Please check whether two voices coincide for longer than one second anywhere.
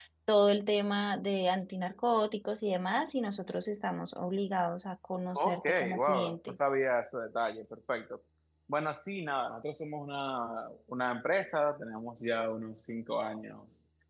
Yes, from 5.4 s

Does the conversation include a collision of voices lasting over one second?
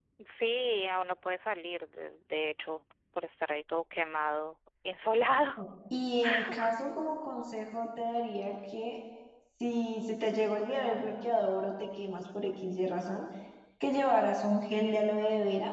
No

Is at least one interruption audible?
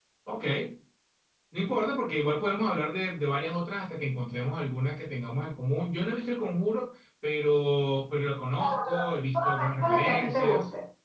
Yes, from 8.6 s

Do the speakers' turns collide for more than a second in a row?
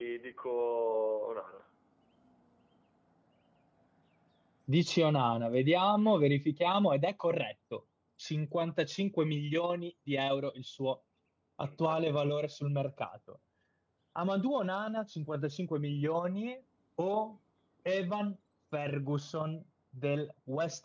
No

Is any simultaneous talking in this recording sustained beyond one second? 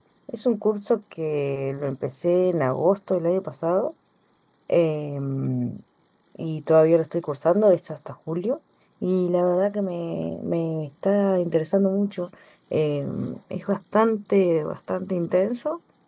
No

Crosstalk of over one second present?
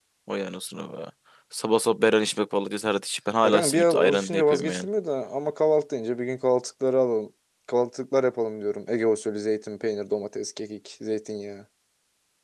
Yes, from 3.4 s

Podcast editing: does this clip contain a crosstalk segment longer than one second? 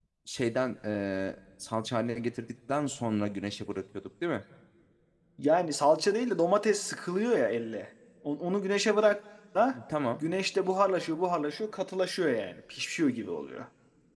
No

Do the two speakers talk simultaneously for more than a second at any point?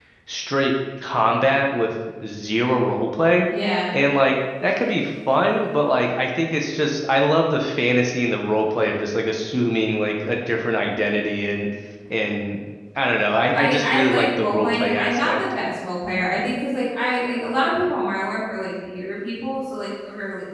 Yes, from 13.5 s

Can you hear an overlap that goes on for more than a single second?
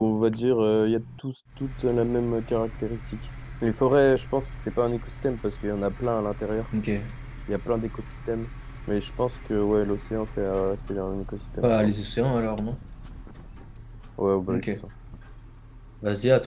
No

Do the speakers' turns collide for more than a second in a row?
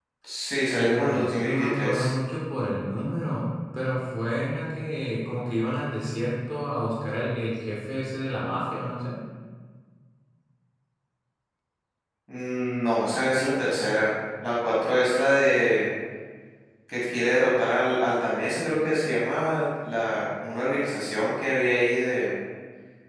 Yes, from 0.8 s

